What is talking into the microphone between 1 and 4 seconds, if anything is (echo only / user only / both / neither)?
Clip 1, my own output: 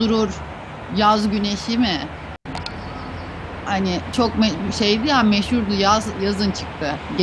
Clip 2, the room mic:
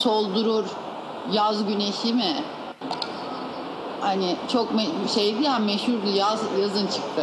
echo only